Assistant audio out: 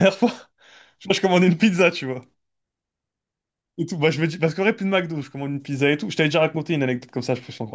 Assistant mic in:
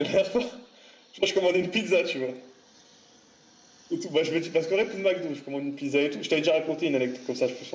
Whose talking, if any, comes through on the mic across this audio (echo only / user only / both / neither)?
echo only